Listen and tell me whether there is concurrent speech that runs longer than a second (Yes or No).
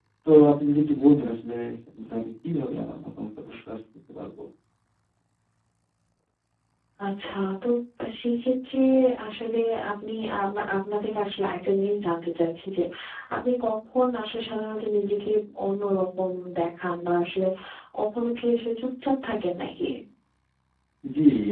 No